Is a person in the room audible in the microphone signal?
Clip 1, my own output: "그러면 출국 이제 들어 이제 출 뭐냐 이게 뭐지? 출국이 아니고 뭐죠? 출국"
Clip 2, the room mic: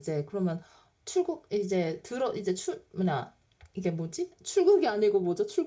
No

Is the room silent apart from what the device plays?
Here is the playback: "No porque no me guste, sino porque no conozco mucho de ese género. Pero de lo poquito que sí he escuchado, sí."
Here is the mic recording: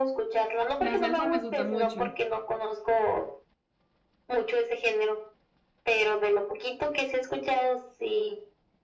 No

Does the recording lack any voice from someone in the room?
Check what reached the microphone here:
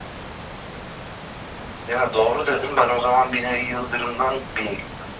Yes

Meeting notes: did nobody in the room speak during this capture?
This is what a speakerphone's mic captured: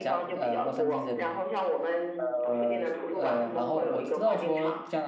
No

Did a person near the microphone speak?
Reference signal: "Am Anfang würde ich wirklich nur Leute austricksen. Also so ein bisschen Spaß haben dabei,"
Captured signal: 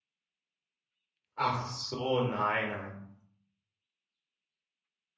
Yes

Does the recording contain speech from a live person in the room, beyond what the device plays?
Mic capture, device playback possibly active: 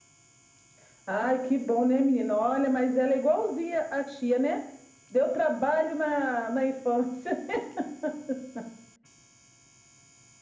No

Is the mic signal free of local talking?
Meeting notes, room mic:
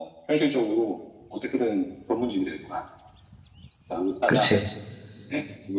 No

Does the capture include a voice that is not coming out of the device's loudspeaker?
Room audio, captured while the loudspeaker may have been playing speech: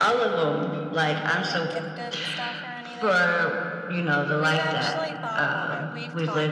Yes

